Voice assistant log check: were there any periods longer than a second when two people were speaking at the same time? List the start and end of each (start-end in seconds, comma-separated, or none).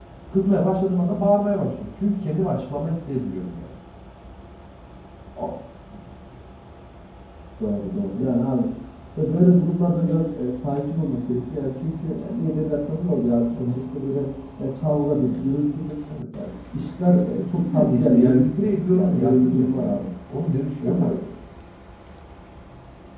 17.4-20.0